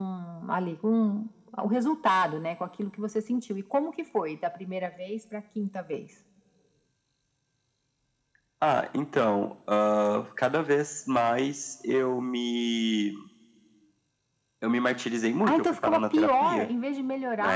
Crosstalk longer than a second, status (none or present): present